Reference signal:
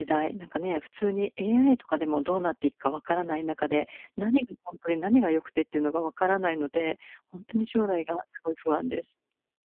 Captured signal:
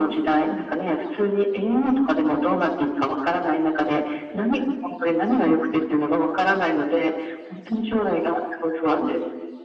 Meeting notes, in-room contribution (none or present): none